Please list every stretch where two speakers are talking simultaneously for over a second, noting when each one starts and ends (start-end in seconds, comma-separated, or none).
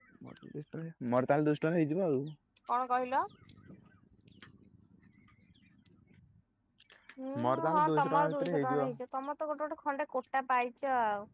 7.4-8.8